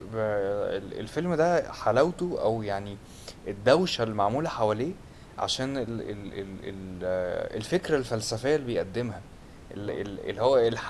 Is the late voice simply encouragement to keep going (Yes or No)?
Yes